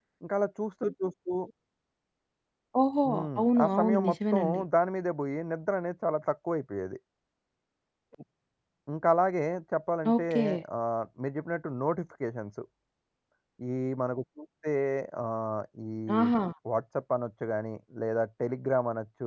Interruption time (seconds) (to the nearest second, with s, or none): 3 s